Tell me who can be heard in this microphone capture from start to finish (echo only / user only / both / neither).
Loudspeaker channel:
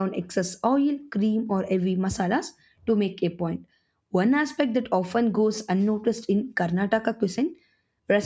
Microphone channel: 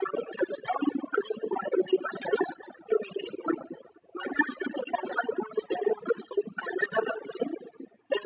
echo only